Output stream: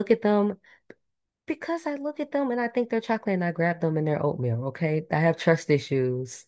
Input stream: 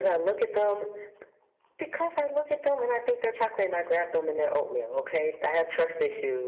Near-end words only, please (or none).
none